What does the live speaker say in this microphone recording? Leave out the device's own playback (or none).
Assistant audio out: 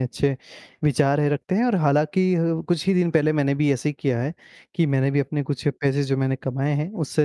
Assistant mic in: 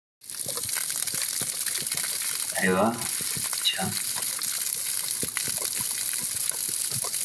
अरे वाह, अच्छा।